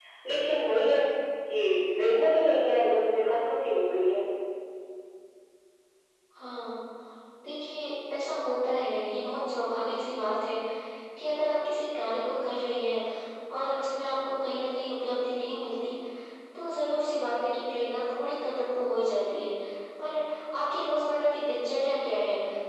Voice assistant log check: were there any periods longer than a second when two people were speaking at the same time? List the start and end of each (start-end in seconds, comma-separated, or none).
none